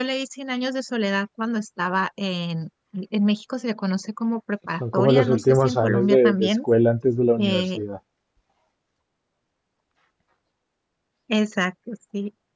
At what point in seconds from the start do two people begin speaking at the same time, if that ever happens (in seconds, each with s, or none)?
4.8 s